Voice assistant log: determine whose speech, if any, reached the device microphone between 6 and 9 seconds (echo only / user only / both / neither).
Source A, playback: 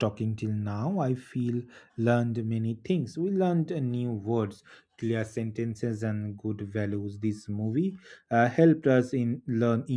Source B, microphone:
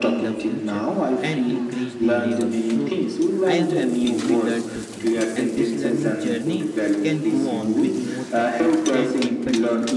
both